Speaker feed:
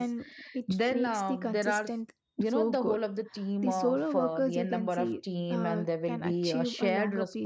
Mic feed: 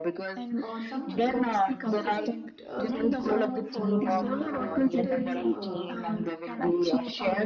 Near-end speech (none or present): present